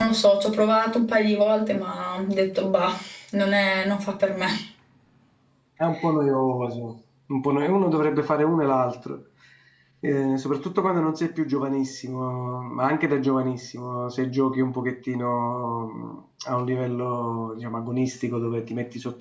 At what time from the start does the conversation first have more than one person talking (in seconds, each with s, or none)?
none